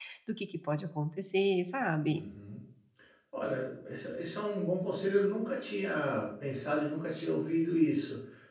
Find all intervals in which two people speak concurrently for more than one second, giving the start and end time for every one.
none

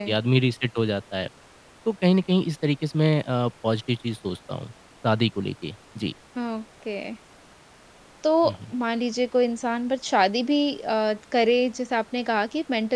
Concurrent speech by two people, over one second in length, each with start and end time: none

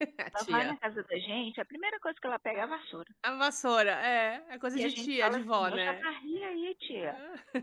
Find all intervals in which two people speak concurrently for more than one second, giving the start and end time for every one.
4.8-6.1

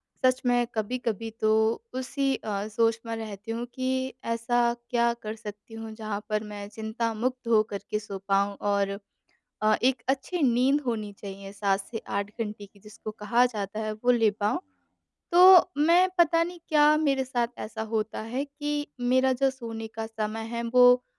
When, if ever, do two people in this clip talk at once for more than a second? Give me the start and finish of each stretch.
none

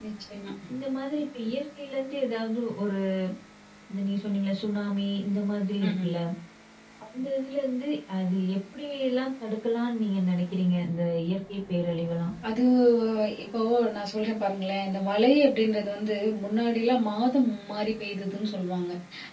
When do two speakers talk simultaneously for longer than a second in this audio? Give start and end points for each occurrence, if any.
none

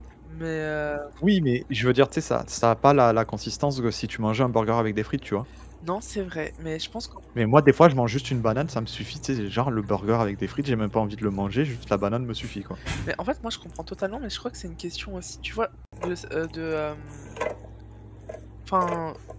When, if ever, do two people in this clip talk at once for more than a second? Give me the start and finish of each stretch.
none

